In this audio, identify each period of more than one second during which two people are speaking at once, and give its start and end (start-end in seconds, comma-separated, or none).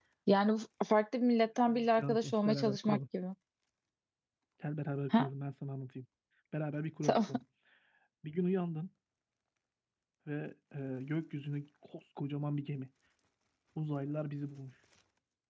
1.7-3.0